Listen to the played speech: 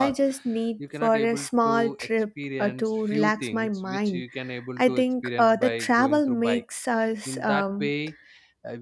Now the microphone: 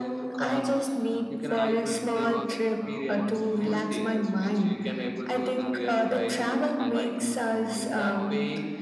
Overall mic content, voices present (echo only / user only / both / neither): both